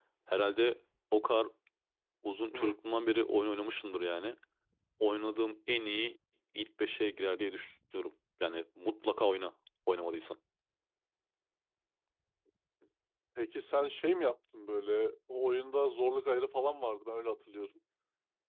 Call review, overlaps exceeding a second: none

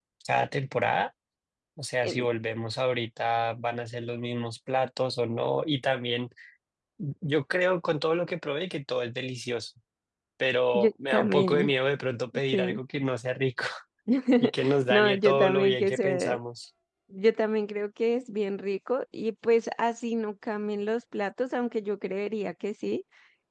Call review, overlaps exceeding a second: present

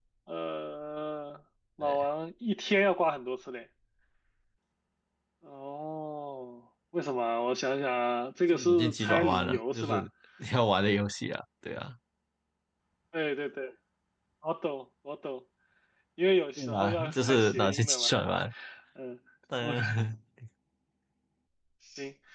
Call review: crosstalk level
present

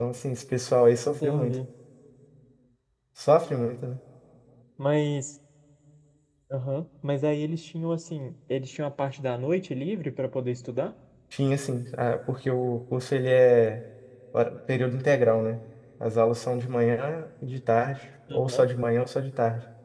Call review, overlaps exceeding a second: none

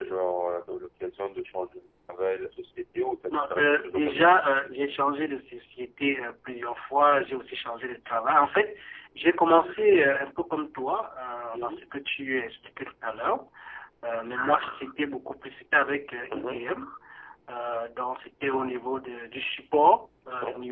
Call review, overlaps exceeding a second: present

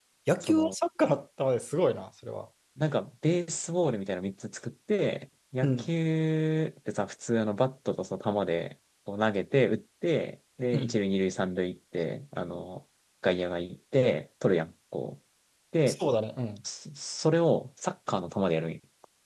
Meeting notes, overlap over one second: none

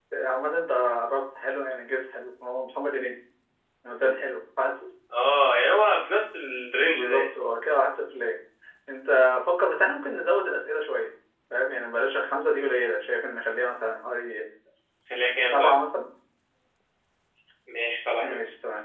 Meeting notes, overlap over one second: none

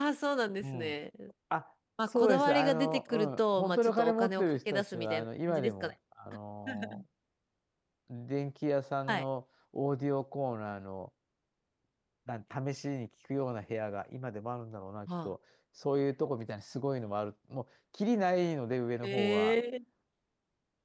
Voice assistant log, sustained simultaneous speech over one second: present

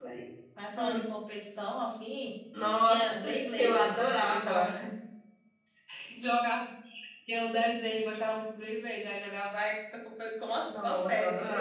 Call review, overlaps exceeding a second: present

